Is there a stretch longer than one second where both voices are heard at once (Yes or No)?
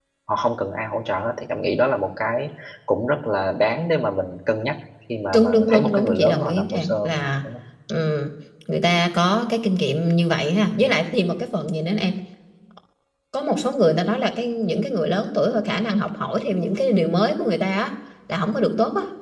Yes